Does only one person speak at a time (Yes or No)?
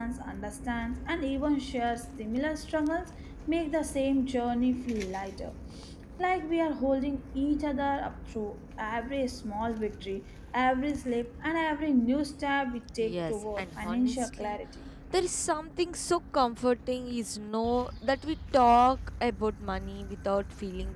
No